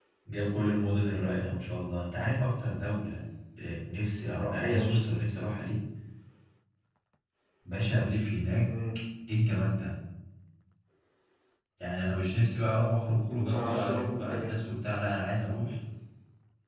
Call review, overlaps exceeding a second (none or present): present